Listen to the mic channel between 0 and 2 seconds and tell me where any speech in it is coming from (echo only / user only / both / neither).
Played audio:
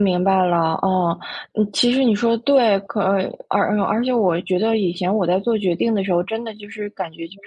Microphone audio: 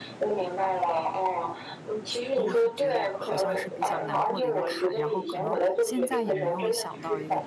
echo only